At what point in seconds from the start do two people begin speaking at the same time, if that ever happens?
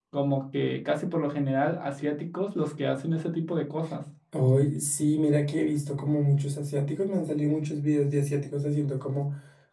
none

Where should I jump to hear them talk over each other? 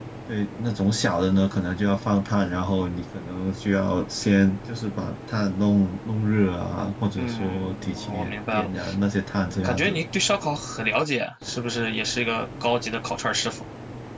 7.2 s

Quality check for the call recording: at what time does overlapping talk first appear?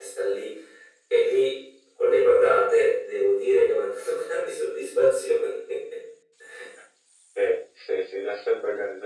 none

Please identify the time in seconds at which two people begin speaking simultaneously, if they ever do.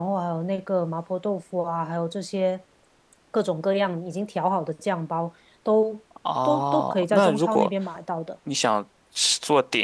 6.5 s

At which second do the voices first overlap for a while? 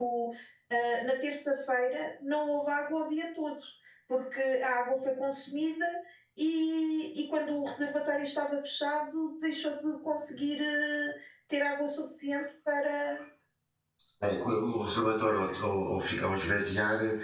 none

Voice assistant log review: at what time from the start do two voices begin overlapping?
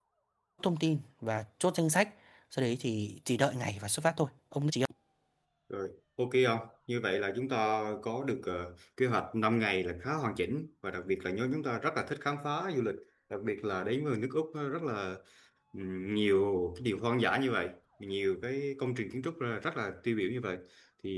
none

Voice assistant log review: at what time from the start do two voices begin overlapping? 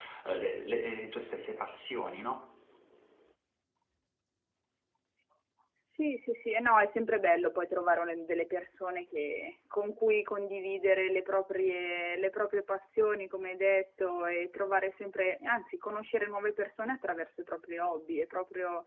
none

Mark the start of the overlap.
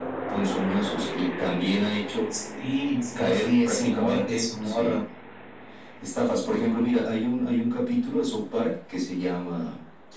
3.2 s

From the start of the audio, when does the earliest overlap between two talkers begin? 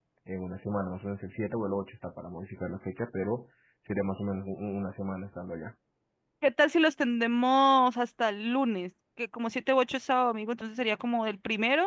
none

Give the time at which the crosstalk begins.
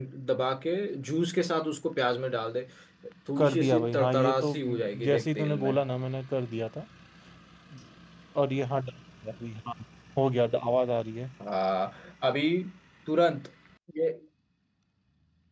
3.4 s

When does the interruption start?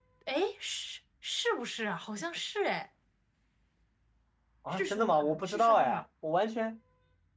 4.7 s

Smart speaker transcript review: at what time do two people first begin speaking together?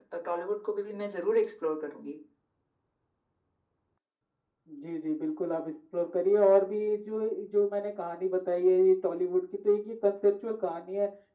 none

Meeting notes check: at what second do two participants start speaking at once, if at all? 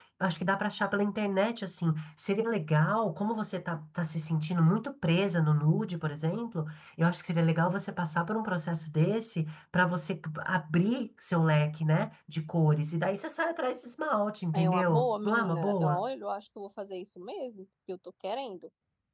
14.5 s

